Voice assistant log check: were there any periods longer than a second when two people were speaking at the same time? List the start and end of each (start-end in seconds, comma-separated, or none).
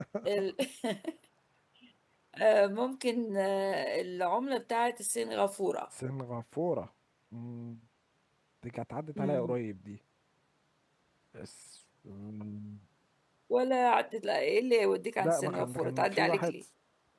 15.2-16.5